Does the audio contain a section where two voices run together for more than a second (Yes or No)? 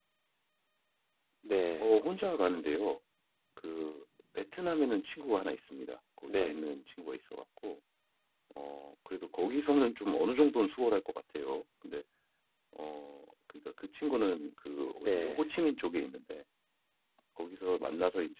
No